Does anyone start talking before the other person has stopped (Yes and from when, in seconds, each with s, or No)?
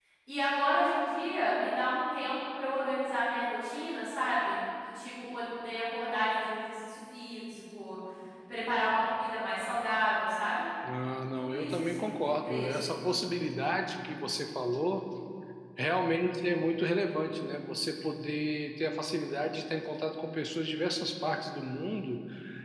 Yes, from 11.4 s